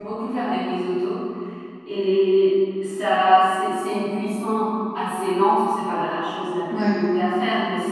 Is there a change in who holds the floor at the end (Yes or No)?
No